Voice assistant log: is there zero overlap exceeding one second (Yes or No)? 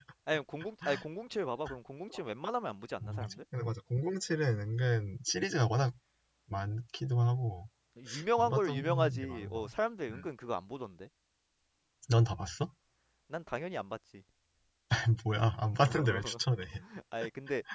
No